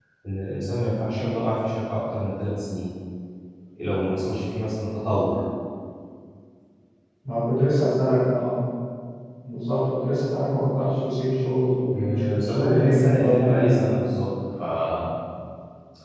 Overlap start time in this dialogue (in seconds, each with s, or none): 11.9 s